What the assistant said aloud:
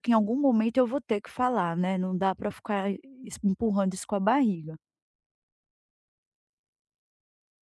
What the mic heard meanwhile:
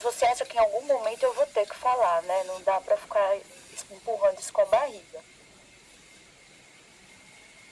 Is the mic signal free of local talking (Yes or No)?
Yes